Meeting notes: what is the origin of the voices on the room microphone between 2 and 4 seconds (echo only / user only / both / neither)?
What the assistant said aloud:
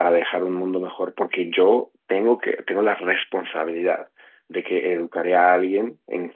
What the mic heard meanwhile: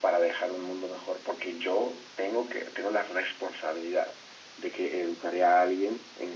echo only